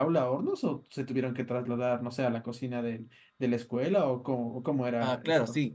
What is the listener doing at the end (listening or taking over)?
taking over